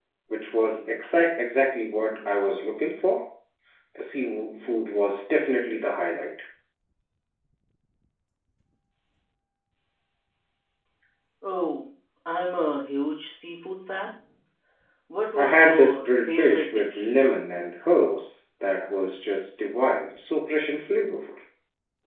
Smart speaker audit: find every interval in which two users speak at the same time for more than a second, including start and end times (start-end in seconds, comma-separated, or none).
15.4-17.1